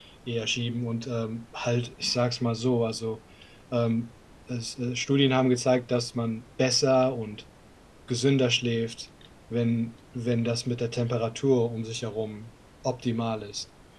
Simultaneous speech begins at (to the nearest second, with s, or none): none